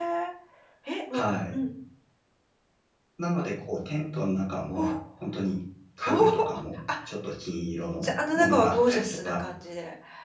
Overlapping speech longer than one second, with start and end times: 8.0-9.4

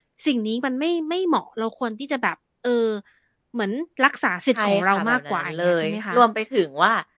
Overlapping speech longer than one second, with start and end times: 4.6-6.2

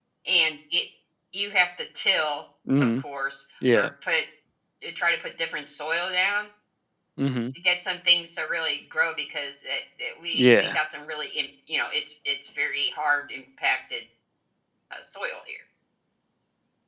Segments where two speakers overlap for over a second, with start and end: none

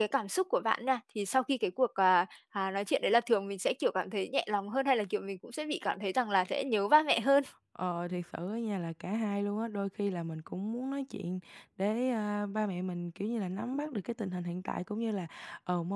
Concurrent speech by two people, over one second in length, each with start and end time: none

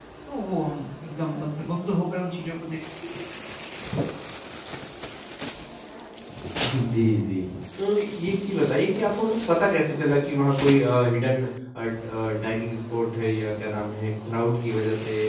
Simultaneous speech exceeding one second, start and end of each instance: none

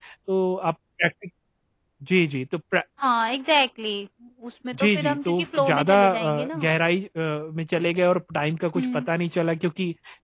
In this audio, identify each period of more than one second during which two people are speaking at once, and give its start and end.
4.8-6.7

